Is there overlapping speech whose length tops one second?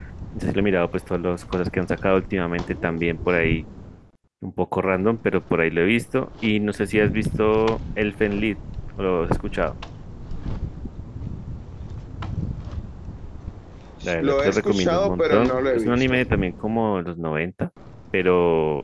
Yes, from 14.2 s

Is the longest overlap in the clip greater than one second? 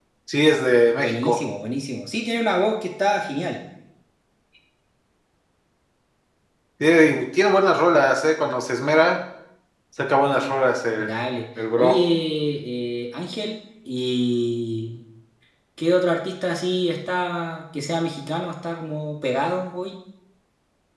No

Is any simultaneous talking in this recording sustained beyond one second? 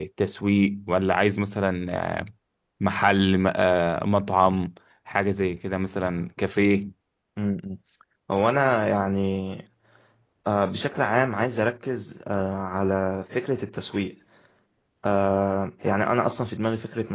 No

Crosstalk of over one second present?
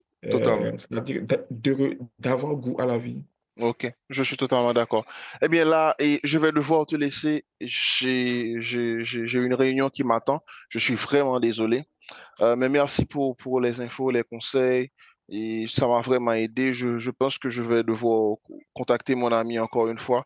No

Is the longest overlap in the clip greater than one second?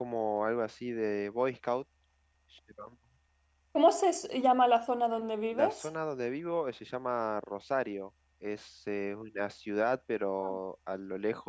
No

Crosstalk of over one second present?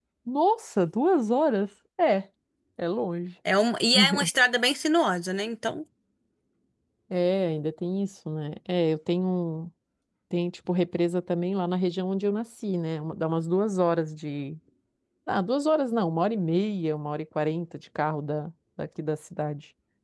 No

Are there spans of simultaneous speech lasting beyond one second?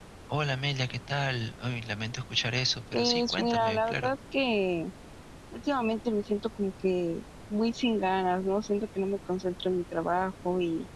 Yes, from 2.9 s

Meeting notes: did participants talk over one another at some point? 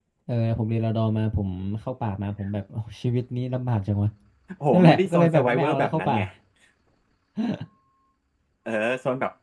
Yes, from 4.7 s

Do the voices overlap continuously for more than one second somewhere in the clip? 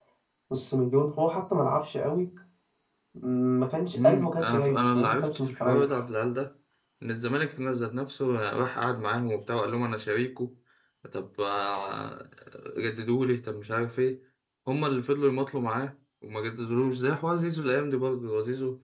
Yes, from 4.0 s

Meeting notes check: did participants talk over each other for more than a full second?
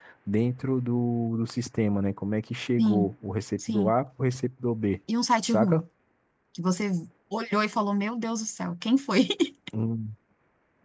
No

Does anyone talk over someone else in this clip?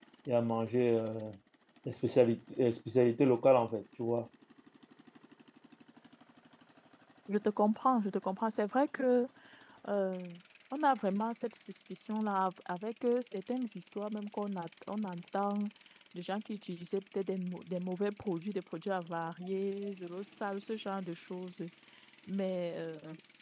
No

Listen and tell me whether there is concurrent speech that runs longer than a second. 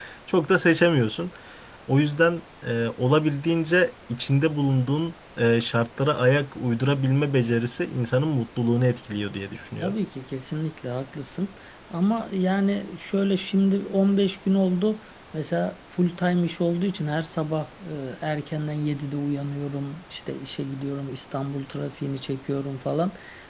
No

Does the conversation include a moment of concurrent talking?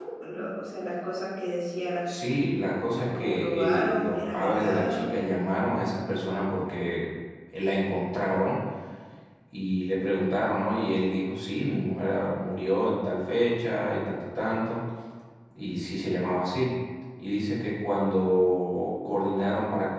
Yes, from 2.9 s

